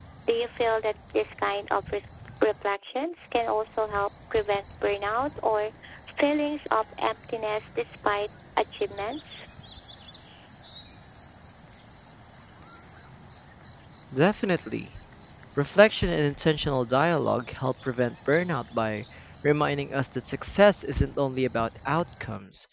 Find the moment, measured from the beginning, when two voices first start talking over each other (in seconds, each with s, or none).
none